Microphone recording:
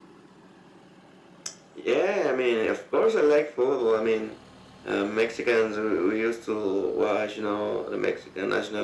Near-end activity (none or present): none